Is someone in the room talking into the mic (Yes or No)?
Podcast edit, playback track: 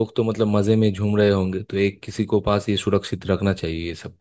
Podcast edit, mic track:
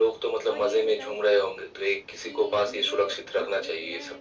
Yes